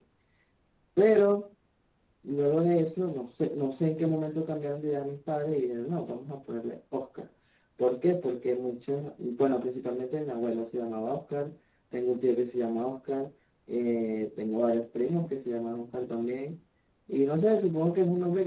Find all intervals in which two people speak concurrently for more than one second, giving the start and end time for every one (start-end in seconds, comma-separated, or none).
none